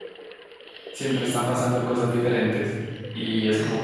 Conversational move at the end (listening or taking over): listening